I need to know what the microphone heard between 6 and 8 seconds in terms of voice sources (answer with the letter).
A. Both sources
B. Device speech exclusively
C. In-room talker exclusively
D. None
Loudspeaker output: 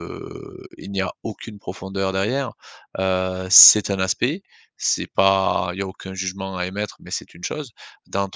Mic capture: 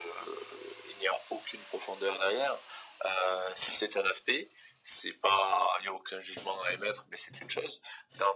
B